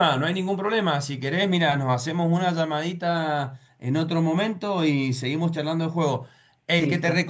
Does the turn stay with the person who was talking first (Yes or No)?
Yes